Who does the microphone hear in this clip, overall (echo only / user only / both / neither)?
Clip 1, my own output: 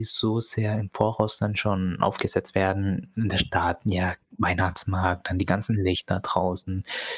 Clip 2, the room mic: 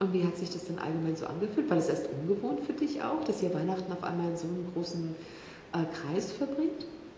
user only